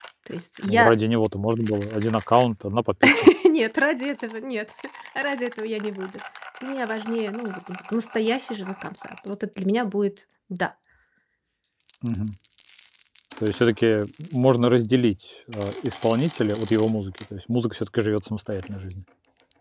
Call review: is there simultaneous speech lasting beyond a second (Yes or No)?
No